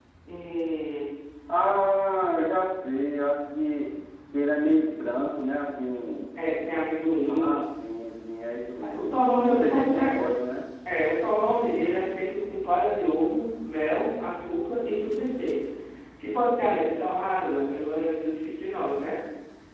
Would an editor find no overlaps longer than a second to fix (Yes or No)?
No